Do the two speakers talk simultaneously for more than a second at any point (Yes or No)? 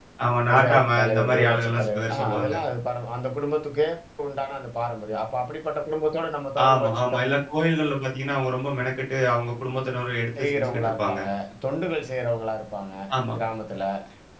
Yes